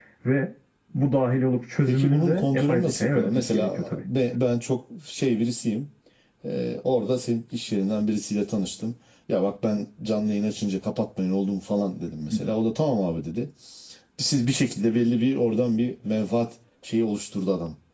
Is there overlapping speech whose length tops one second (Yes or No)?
Yes